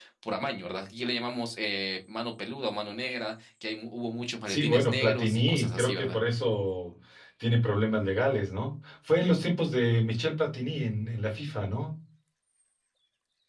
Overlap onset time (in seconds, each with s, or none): 4.5 s